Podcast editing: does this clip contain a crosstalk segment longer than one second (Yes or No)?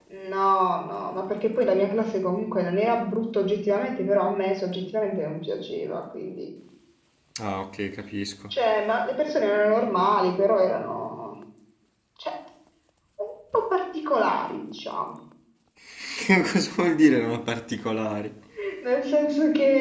No